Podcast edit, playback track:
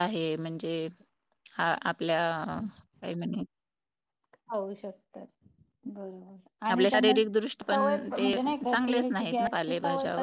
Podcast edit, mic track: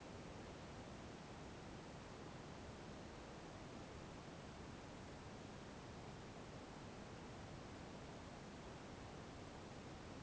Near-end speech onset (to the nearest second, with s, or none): none